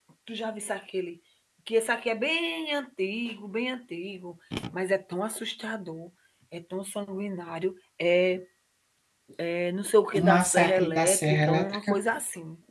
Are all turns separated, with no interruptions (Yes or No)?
No